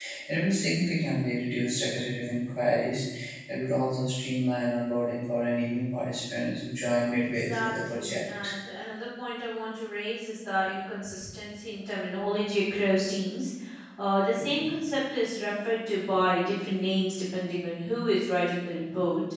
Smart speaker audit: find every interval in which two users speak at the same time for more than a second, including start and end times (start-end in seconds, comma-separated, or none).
7.2-8.5